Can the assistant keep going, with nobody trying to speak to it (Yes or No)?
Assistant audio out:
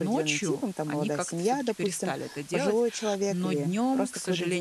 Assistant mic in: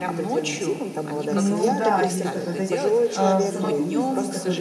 No